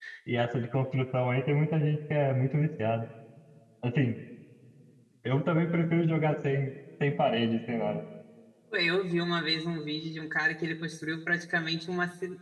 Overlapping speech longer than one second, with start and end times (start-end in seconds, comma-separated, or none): none